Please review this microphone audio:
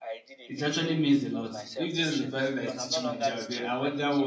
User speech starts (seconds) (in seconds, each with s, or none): 0.5 s